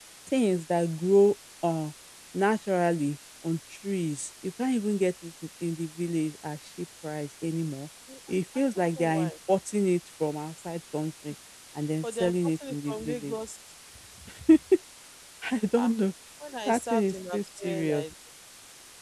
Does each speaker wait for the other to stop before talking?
No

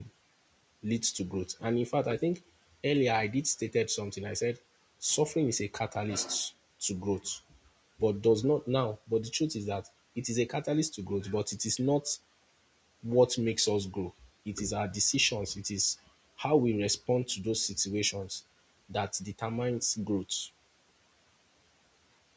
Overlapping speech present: No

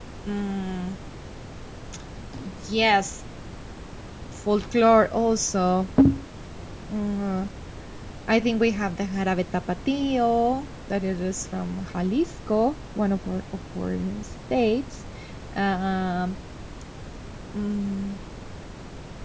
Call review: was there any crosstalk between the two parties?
No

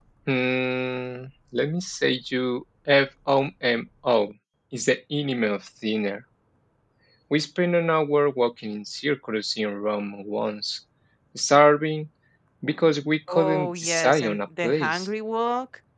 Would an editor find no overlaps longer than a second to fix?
No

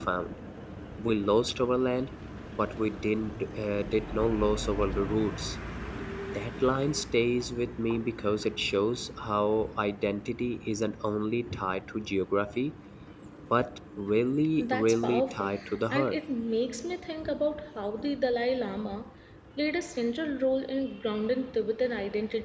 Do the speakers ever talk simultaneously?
Yes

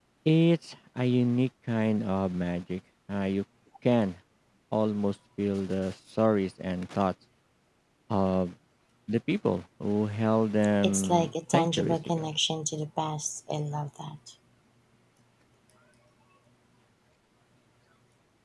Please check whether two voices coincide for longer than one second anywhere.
Yes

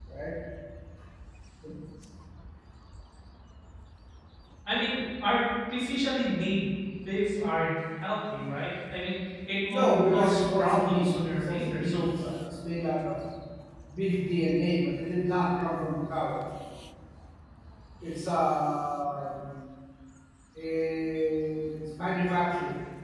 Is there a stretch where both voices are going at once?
Yes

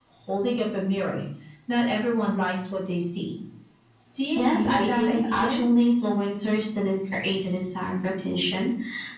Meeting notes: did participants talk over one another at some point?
Yes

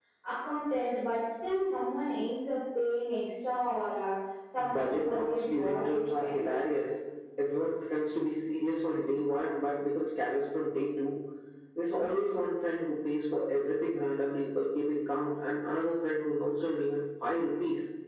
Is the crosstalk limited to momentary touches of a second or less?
No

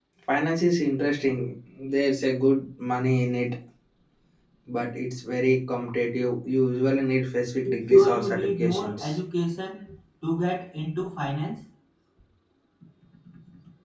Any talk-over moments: Yes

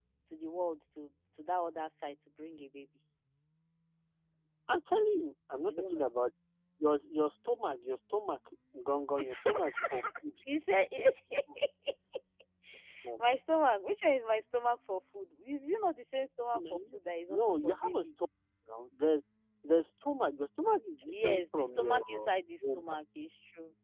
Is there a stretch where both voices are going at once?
Yes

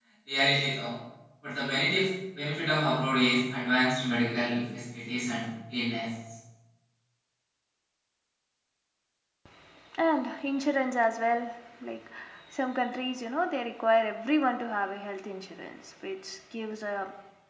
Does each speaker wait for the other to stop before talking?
Yes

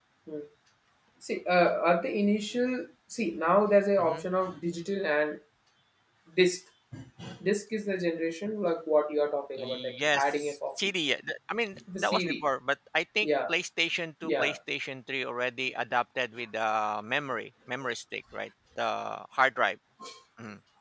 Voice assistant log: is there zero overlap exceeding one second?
No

